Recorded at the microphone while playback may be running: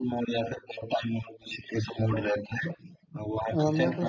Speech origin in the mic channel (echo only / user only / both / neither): both